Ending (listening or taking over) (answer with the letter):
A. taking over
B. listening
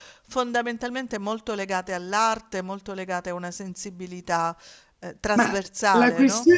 A